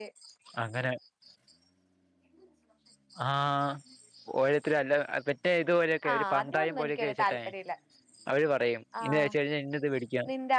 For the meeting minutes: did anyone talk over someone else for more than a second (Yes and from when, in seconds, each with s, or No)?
Yes, from 6.1 s